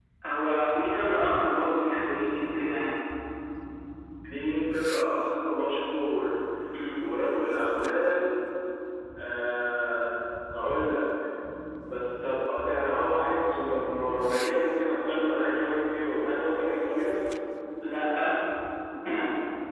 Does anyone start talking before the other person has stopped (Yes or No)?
No